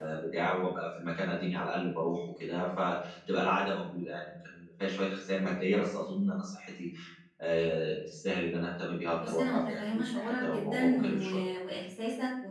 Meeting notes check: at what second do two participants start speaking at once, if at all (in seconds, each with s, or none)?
9.1 s